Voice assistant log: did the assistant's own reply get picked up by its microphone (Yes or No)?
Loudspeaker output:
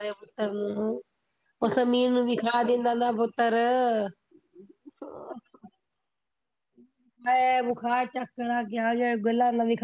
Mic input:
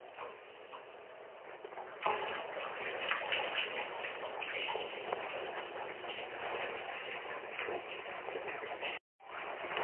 No